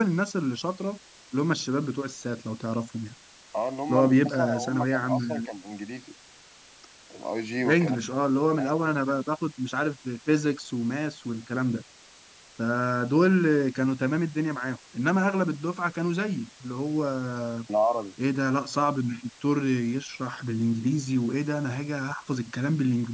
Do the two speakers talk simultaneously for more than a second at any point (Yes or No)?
Yes